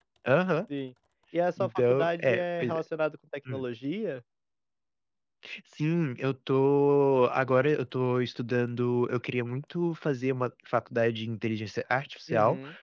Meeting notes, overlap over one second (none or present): present